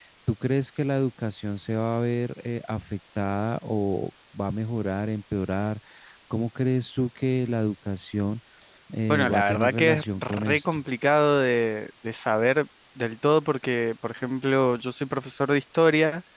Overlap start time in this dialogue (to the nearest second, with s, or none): 9 s